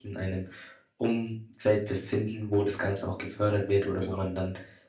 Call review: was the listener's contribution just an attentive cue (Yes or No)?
Yes